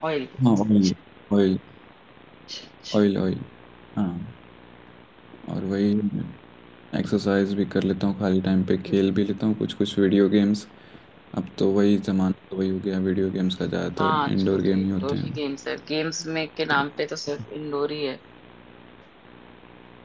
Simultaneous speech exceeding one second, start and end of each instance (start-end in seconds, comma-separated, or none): 14.0-15.3